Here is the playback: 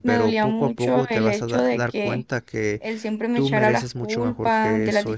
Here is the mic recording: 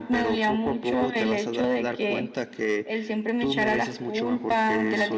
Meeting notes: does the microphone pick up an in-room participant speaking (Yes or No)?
No